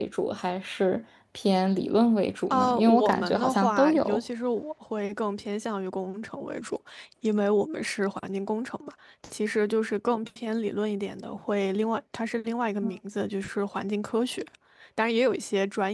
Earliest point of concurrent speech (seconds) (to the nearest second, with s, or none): 3 s